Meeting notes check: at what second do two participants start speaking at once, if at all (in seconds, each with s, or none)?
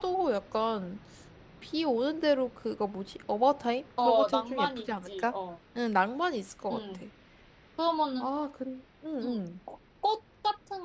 4.0 s